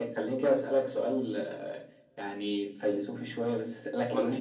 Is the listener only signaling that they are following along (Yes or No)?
Yes